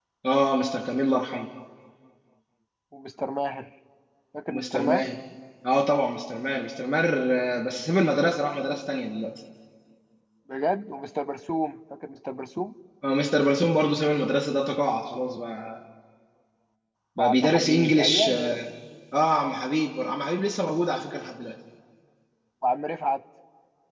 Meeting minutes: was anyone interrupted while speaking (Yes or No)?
Yes